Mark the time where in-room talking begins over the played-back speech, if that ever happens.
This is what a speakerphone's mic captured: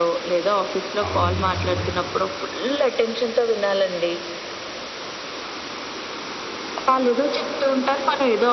1 s

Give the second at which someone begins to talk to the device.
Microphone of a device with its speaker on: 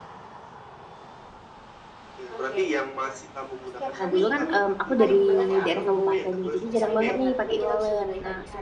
4 s

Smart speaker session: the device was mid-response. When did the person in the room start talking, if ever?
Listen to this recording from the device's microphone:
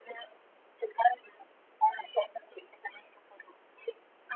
none

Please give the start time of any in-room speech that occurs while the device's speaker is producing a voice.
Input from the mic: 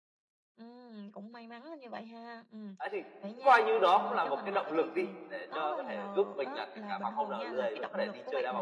3 s

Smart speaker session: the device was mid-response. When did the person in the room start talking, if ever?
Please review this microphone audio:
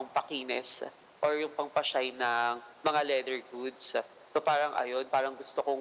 none

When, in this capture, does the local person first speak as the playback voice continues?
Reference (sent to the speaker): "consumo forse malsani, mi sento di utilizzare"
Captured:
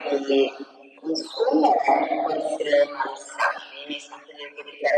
none

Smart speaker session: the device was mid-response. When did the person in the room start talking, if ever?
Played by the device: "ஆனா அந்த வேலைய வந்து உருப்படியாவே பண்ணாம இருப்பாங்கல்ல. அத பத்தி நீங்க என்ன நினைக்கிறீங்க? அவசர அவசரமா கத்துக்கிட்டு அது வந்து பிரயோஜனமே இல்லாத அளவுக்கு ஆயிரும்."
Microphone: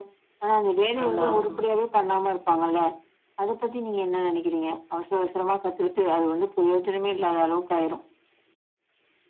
1 s

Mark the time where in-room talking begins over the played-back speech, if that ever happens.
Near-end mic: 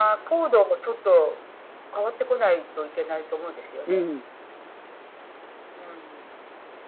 4 s

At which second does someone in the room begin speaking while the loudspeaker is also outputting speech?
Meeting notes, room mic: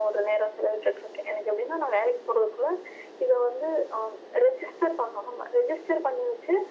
none

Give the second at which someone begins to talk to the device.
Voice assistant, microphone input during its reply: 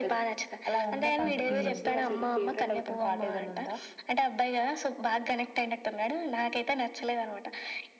1 s

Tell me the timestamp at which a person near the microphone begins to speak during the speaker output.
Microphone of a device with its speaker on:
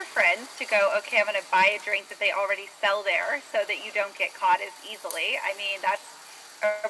none

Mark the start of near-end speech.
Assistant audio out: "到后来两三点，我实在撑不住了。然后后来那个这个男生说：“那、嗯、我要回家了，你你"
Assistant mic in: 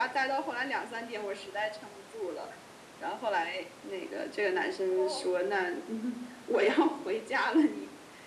5 s

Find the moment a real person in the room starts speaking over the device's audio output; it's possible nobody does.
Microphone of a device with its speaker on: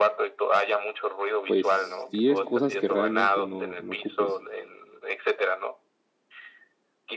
1 s

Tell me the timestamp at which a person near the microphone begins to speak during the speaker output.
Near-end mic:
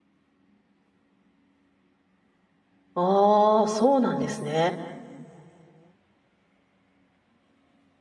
3 s

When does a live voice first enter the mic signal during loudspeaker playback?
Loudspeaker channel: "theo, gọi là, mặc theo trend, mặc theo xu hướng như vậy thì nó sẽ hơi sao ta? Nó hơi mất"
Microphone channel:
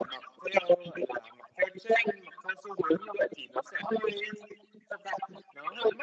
none

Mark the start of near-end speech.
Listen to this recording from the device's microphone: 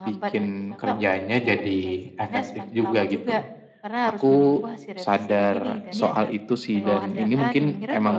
6 s

